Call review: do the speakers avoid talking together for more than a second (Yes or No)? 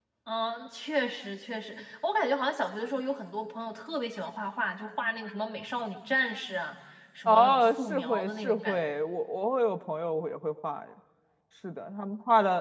No